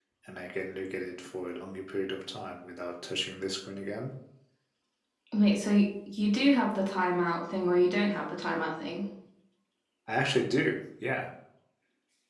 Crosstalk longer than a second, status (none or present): none